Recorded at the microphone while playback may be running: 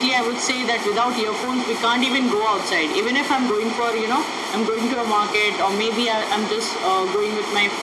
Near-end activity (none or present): none